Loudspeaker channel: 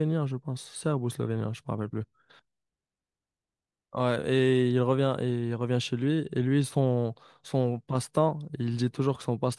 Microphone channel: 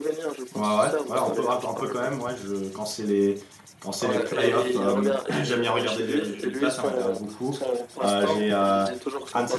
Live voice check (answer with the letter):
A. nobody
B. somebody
B